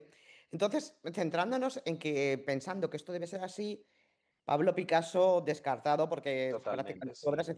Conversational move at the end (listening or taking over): listening